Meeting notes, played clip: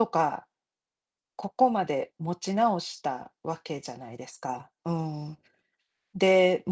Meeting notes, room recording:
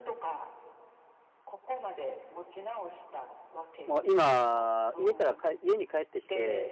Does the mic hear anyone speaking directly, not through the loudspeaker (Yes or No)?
Yes